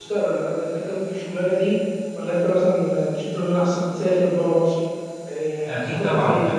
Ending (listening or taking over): taking over